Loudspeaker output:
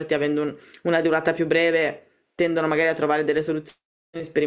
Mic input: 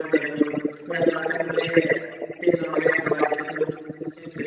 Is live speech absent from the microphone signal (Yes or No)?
Yes